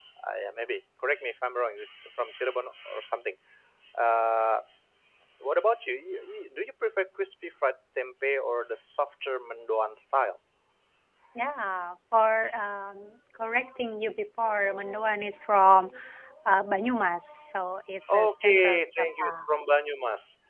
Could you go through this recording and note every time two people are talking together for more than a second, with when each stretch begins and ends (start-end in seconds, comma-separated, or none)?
18.1-19.3